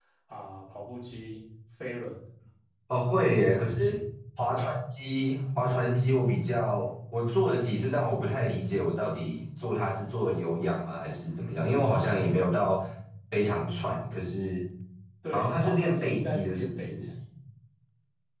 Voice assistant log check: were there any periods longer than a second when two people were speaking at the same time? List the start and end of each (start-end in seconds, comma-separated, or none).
15.3-16.9